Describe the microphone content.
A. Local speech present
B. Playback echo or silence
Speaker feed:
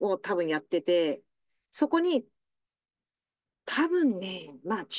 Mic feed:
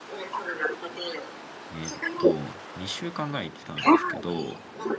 A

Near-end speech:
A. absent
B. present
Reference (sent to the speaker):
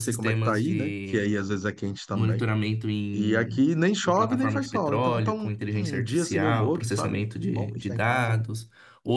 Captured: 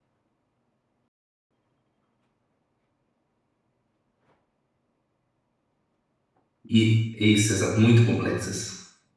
B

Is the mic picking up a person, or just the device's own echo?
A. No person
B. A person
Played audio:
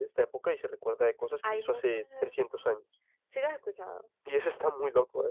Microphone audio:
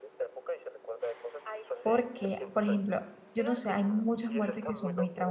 B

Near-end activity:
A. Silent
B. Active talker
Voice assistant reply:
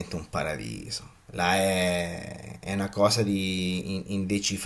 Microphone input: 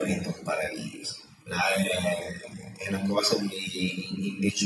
A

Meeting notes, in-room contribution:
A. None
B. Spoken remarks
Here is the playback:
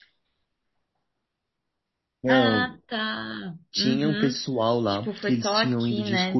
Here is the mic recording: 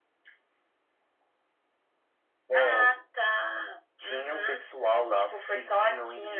A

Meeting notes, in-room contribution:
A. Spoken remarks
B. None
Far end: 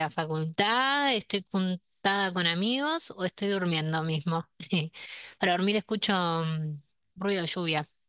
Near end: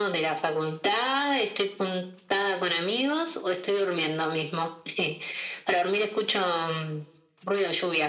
B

